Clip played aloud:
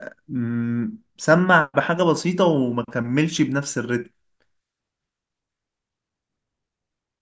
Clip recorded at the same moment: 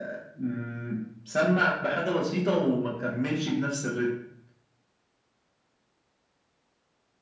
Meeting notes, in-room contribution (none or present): none